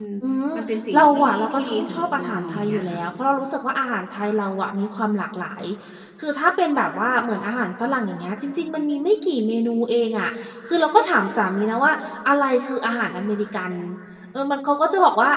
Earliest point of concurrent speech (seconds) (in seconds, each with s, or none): 0.9 s